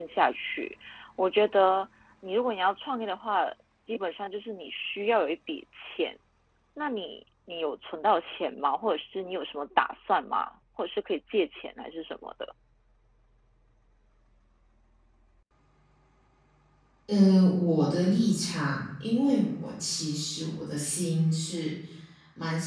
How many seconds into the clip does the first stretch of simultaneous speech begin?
none

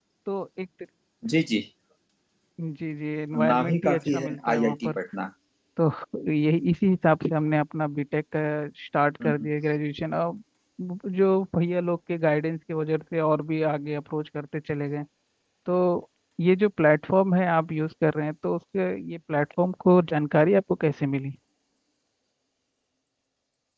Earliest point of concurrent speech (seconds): 3 s

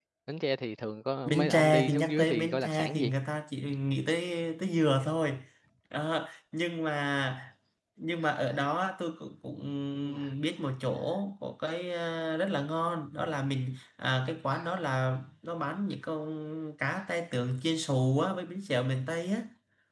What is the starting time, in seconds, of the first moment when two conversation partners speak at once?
1 s

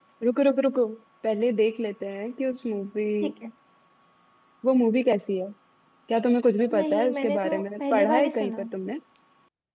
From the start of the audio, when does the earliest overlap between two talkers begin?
7 s

